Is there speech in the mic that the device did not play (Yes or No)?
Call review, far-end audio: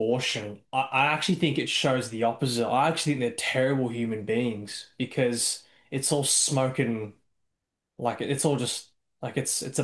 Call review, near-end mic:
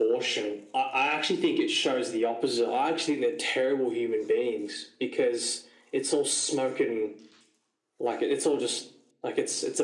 No